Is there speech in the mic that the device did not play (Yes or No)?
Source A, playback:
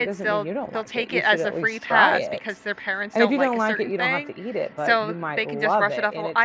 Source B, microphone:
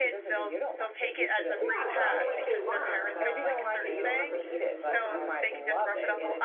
Yes